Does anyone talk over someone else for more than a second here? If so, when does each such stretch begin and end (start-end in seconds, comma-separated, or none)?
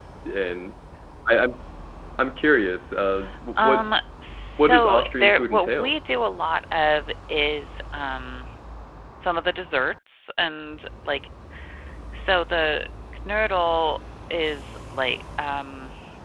4.6-5.9